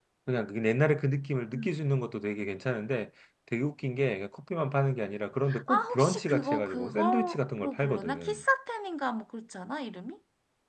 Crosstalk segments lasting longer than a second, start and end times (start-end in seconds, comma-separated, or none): 5.7-8.4